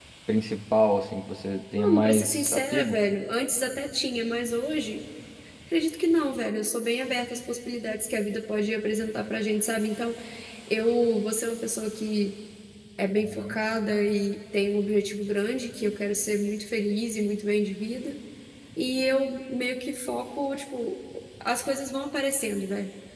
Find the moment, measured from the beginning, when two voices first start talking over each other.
1.8 s

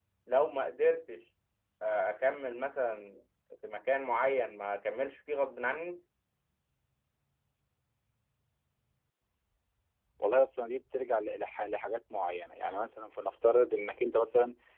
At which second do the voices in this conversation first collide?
none

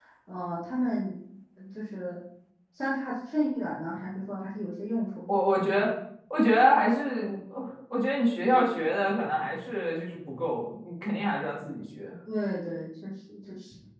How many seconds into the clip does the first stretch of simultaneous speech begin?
none

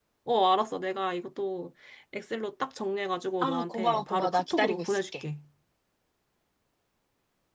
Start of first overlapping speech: 3.4 s

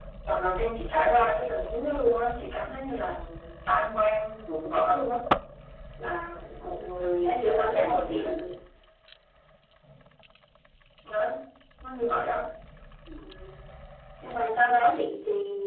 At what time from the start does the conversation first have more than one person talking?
6.4 s

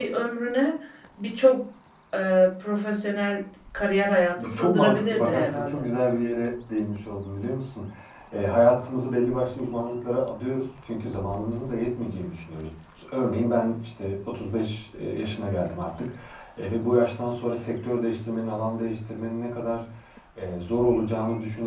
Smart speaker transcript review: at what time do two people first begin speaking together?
4.4 s

